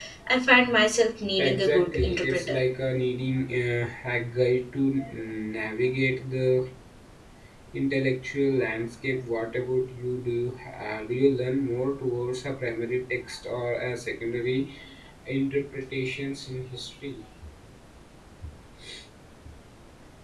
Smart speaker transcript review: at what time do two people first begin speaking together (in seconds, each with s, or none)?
1.4 s